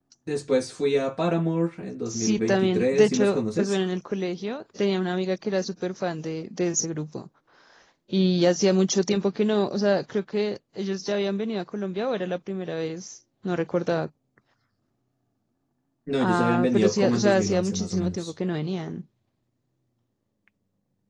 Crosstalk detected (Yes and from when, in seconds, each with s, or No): Yes, from 2.1 s